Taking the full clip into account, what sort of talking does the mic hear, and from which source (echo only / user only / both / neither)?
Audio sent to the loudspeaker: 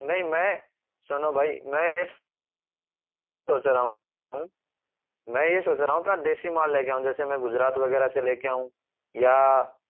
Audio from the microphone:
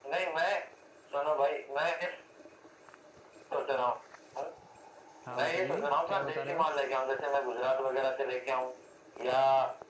both